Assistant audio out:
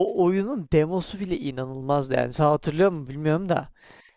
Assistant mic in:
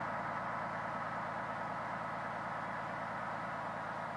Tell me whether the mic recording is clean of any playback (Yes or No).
Yes